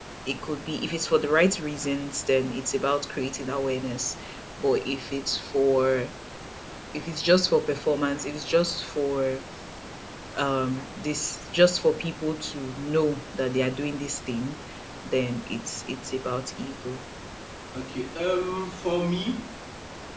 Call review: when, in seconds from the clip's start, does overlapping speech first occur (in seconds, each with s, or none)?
none